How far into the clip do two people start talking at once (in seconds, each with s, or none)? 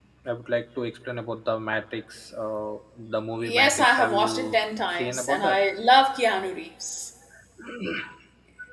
3.4 s